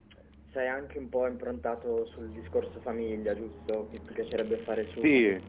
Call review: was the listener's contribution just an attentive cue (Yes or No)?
No